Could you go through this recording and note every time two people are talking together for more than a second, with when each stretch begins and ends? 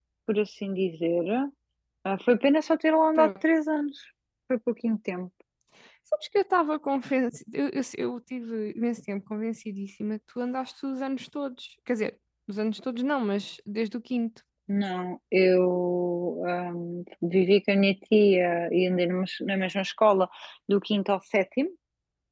none

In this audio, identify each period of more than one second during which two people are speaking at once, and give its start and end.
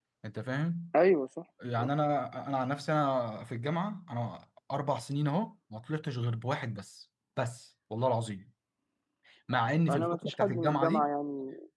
9.9-11.1

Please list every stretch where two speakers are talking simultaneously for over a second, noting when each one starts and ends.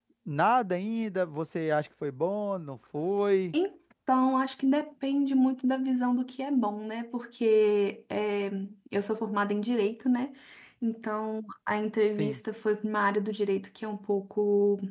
none

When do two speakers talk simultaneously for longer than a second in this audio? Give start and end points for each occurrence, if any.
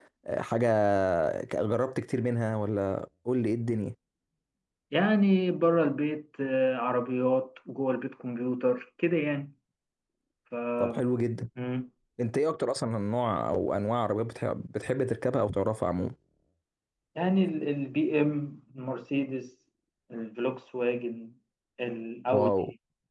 none

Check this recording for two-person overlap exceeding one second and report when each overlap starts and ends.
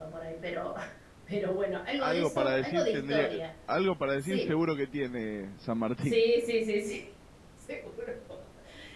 2.0-3.3

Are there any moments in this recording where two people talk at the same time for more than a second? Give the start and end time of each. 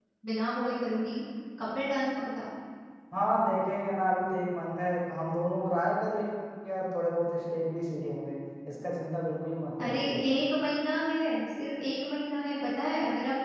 none

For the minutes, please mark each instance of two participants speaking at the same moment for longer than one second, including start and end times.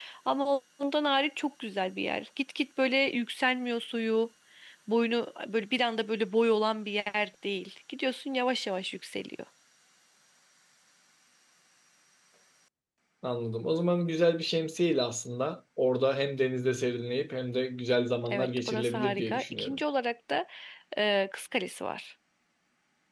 18.3-19.8

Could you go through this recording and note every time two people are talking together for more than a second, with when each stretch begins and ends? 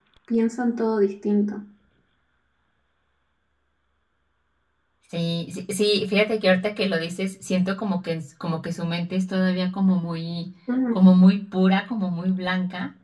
none

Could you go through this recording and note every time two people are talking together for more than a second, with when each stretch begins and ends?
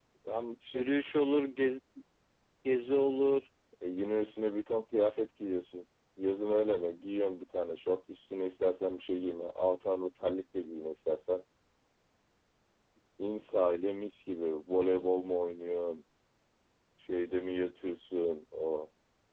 none

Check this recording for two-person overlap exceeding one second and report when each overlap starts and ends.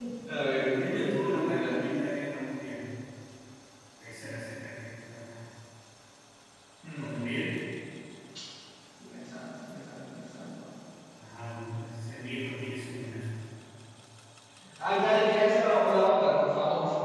0.6-1.8

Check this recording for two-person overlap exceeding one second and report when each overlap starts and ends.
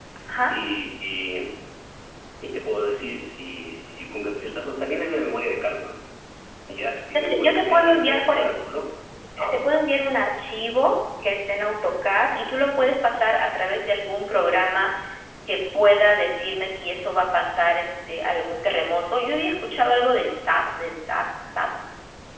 7.1-8.5

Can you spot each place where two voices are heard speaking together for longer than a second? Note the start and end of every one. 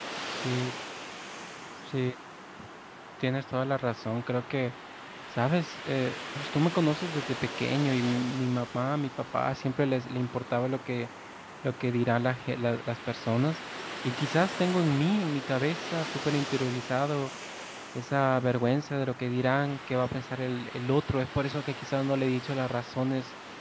none

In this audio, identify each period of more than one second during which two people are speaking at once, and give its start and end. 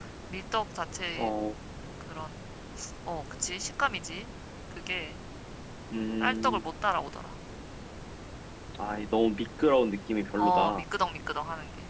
none

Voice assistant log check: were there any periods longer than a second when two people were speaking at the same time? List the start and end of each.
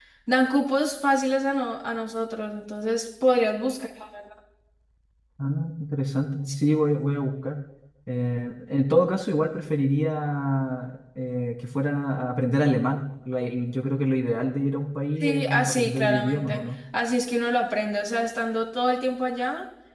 15.2-16.6

